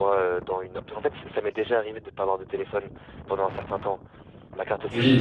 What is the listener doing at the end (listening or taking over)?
taking over